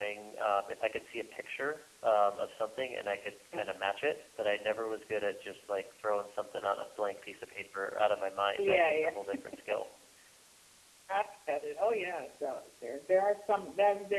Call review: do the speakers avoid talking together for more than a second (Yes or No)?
Yes